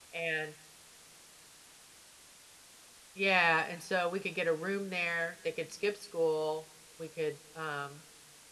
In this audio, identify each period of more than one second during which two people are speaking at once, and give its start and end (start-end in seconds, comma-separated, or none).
none